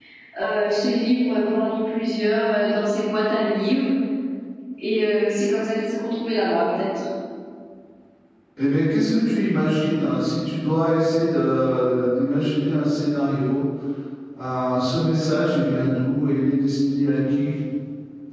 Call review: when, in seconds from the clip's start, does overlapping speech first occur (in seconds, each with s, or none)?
none